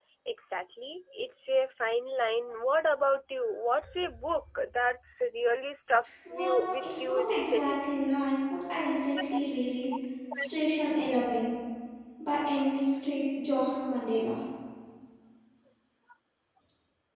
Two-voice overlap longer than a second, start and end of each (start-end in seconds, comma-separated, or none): 6.3-7.8